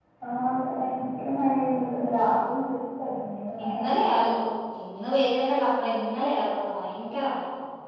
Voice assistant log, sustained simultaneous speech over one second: none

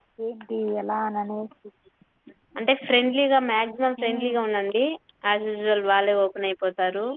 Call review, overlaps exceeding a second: none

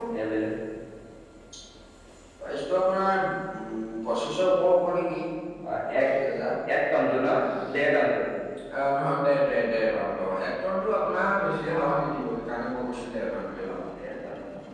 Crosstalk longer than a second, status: none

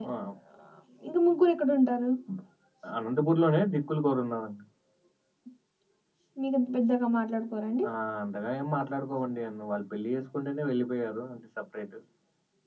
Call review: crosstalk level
none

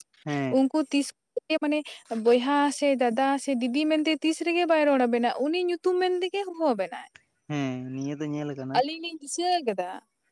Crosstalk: none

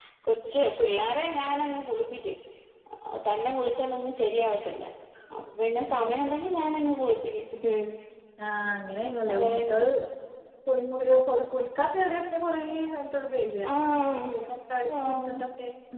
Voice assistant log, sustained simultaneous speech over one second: none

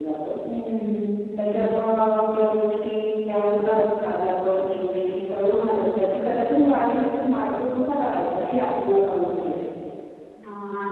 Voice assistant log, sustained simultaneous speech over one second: none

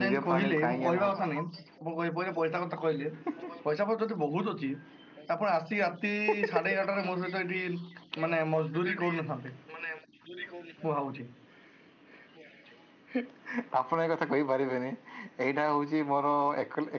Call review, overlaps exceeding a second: present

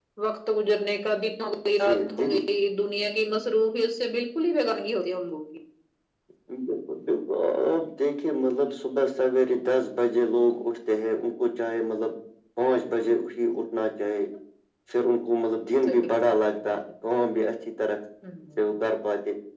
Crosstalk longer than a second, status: none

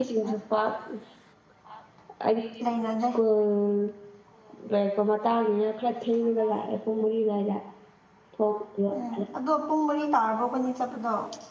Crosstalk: none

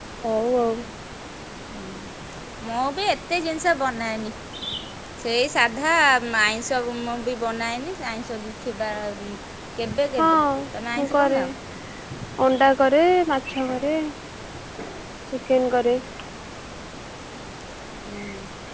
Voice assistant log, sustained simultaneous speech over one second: none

